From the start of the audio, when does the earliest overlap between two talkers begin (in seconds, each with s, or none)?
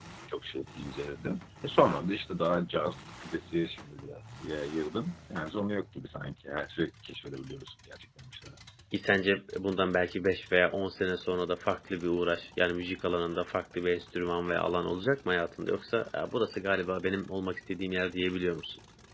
none